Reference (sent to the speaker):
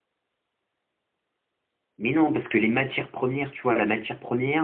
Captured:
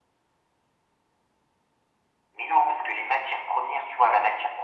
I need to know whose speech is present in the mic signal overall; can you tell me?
echo only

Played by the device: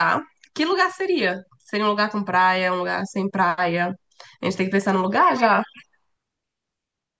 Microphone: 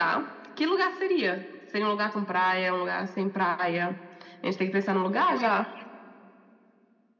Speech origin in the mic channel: echo only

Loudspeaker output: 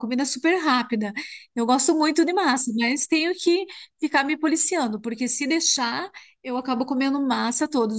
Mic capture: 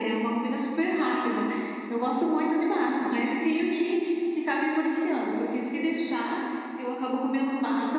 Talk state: echo only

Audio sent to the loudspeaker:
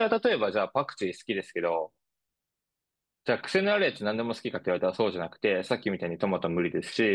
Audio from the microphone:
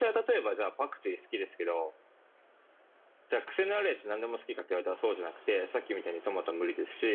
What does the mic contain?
echo only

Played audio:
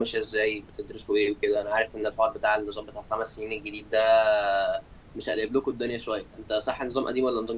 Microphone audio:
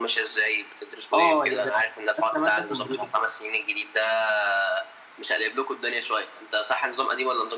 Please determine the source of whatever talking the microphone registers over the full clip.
both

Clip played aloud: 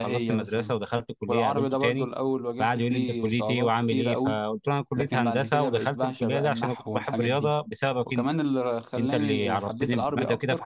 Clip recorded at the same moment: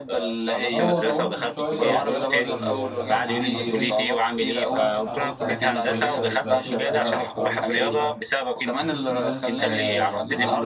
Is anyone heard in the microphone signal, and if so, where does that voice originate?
both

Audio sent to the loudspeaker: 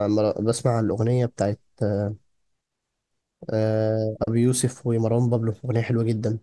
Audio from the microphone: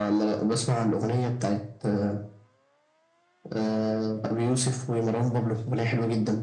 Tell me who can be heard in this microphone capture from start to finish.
echo only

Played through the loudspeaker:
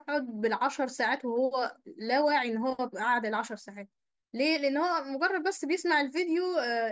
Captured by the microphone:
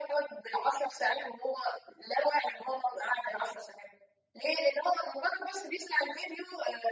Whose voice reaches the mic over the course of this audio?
echo only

